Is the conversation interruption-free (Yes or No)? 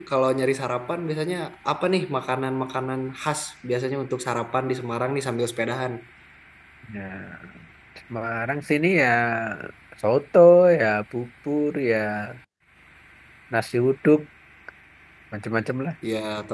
Yes